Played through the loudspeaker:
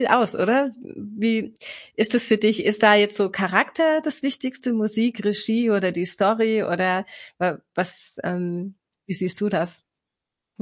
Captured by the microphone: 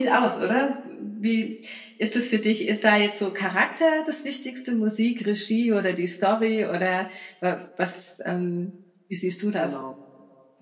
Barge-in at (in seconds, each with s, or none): 9.6 s